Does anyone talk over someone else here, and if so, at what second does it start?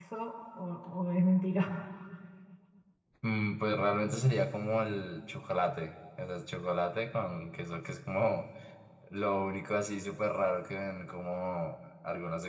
none

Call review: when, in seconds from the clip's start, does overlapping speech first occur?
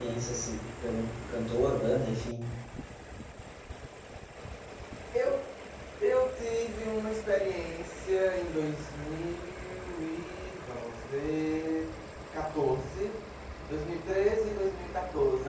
none

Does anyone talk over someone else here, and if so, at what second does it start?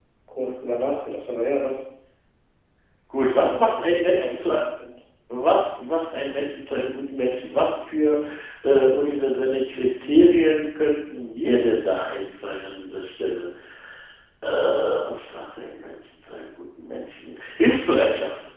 3.3 s

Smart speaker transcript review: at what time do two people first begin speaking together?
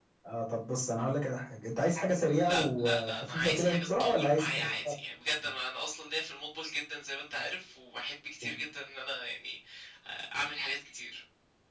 2.3 s

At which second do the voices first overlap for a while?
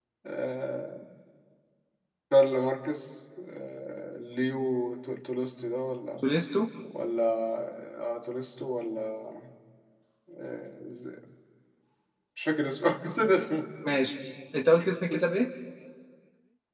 none

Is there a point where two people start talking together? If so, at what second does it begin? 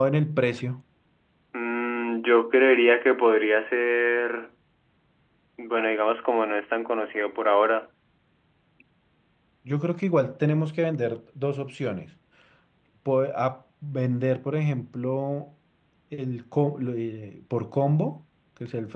none

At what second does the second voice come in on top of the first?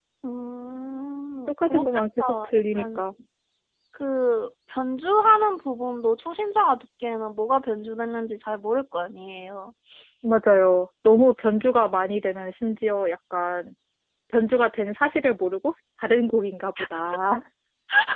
1.5 s

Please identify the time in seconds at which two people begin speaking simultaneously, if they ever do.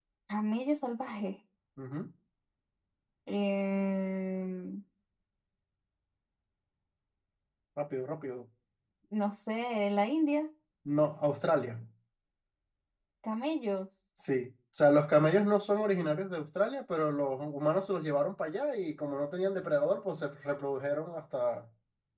none

